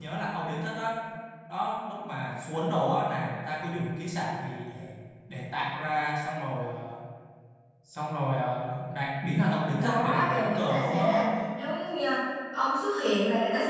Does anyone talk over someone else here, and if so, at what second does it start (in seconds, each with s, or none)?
9.8 s